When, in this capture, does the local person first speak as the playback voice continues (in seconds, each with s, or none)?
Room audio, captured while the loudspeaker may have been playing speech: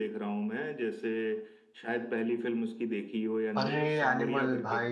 3.6 s